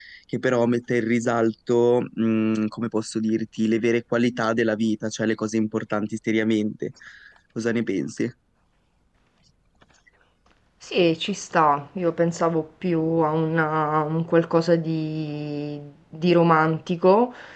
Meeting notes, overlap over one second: none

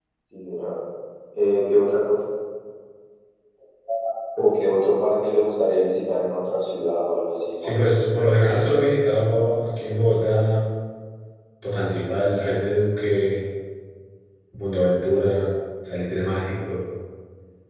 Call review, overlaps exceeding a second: none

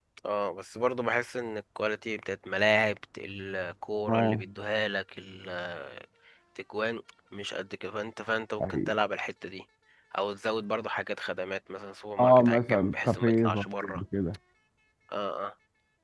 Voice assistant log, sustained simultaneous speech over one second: present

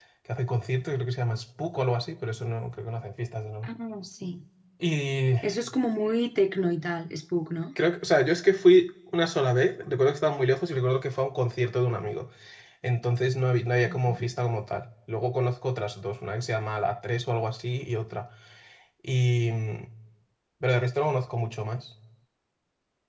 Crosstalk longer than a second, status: none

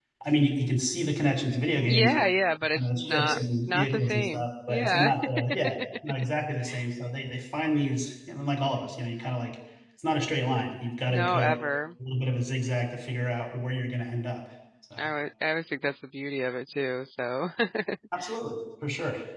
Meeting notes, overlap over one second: present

